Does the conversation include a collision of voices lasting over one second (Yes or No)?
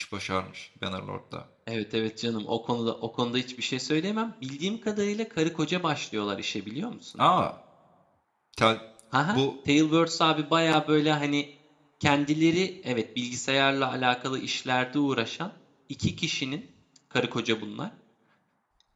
No